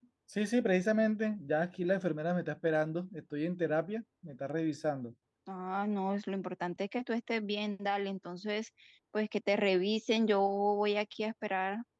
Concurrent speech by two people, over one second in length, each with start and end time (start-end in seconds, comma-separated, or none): none